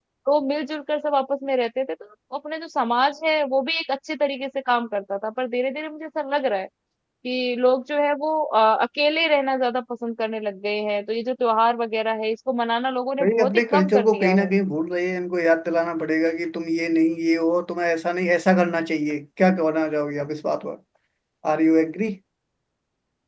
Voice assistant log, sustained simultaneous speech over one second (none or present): present